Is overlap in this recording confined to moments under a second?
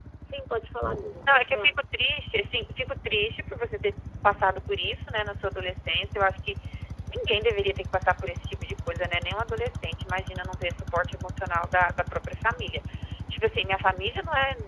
Yes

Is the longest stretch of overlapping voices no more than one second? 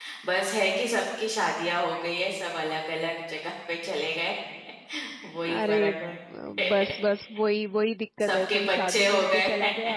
No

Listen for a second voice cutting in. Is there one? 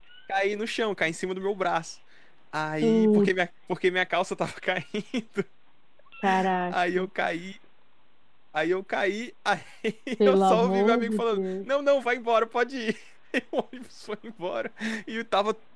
Yes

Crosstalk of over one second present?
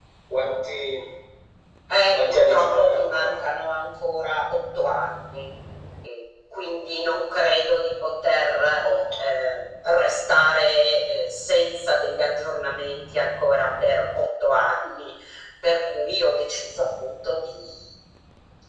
Yes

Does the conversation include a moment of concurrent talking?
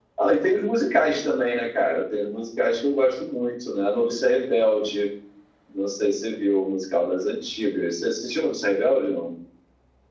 No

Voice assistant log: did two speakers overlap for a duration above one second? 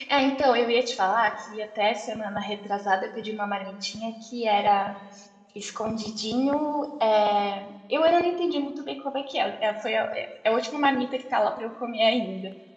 No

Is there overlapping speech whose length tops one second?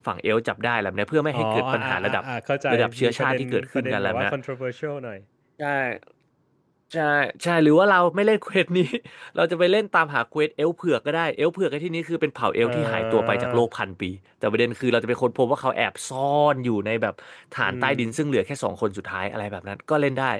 Yes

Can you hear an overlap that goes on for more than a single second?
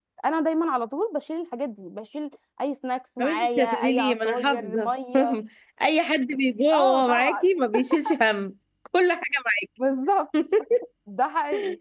Yes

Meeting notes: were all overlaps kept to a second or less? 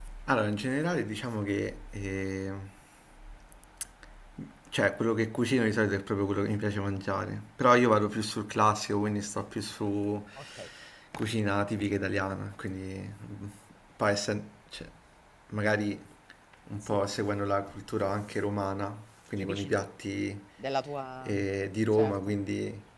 Yes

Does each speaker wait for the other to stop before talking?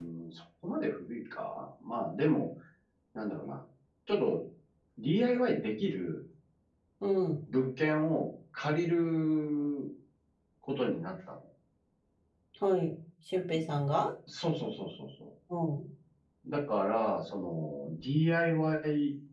Yes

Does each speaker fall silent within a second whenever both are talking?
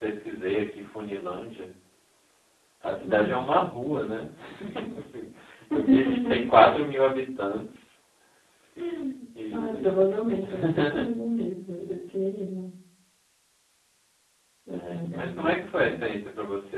No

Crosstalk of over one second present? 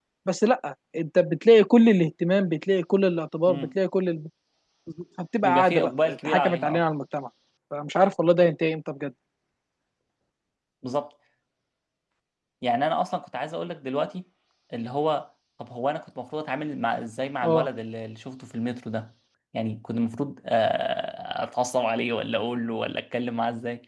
Yes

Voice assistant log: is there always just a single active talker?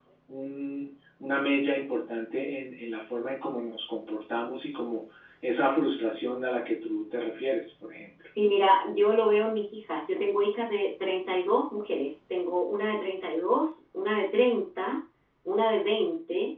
Yes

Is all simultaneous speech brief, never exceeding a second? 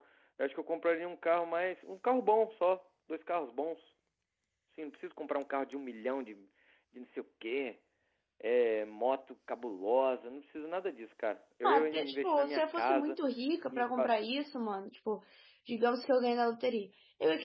No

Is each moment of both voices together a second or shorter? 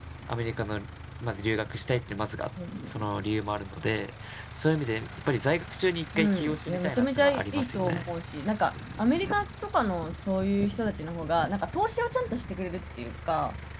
No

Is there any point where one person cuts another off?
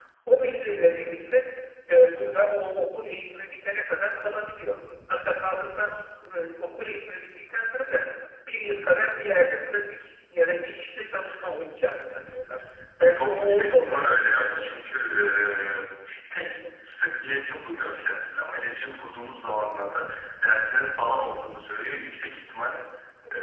Yes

